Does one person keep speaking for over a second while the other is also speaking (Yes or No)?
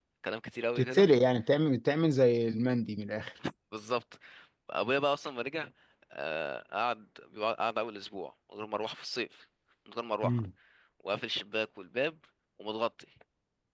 No